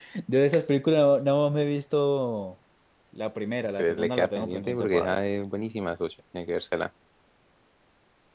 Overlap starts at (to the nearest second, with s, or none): 4 s